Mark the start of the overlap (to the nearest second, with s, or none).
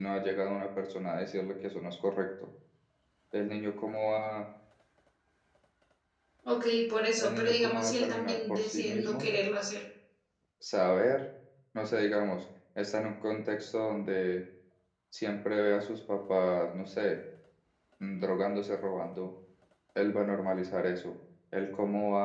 7 s